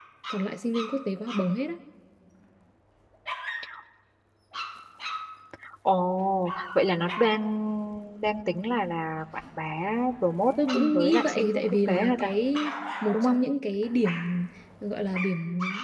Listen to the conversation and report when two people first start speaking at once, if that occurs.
11 s

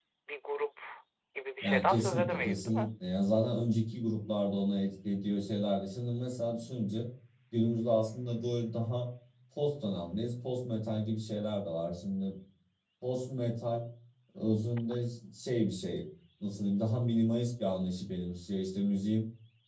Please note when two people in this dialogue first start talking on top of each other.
2 s

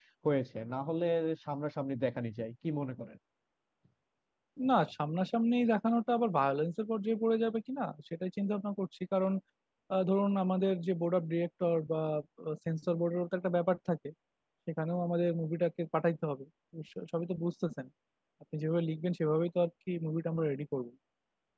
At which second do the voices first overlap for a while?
none

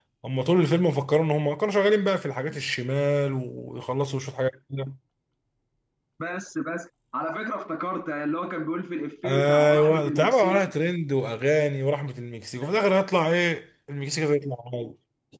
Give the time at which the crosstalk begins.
9 s

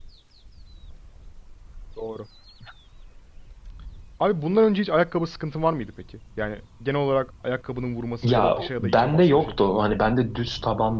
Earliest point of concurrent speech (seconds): 8 s

